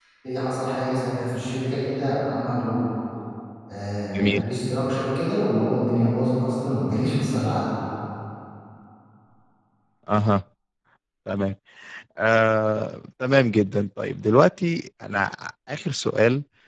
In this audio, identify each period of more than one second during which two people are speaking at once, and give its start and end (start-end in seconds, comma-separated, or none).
none